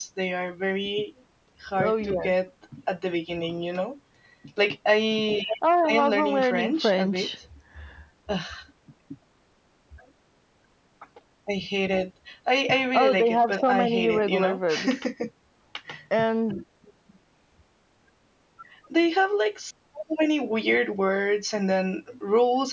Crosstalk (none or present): present